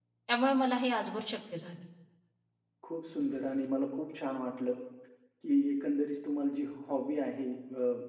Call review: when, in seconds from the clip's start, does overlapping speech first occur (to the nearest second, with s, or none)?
none